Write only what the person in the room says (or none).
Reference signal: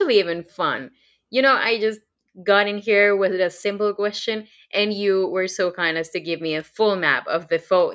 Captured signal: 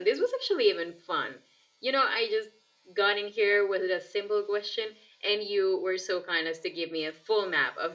none